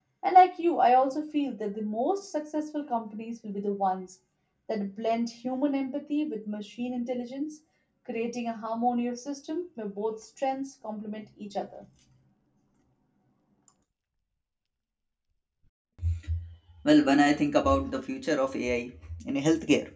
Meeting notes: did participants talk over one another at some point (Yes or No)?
No